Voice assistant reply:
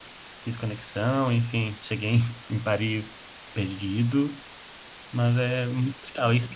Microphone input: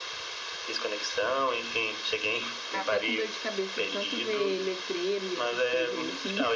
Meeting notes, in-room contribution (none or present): present